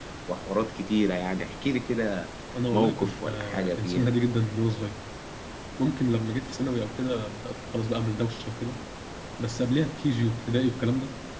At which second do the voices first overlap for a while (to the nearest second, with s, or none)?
3 s